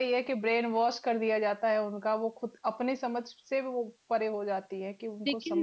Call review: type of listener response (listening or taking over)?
taking over